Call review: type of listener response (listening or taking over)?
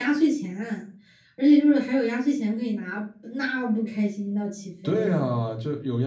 taking over